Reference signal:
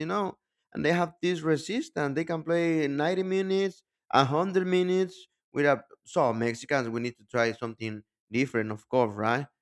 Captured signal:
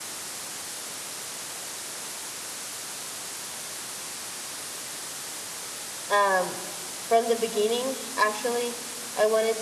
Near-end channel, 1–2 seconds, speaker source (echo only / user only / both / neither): neither